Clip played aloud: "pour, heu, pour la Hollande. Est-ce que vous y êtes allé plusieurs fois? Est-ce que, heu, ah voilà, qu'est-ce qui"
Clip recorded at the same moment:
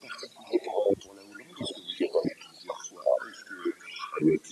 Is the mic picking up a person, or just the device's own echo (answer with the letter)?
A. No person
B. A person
A